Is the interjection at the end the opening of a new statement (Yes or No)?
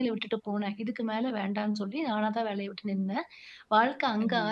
No